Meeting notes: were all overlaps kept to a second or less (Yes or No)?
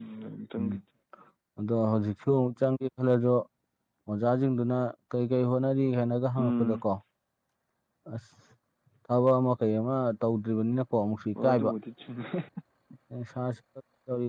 Yes